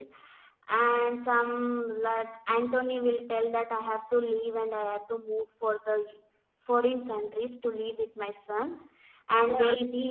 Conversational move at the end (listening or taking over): taking over